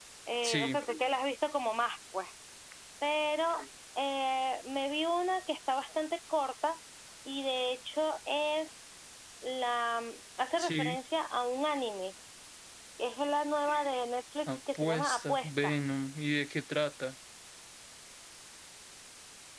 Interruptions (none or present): present